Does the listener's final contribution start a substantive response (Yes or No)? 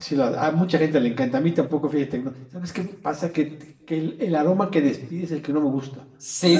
Yes